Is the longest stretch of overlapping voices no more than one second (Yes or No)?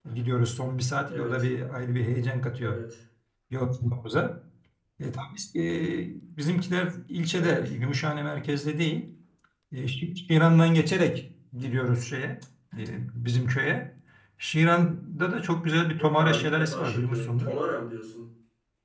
No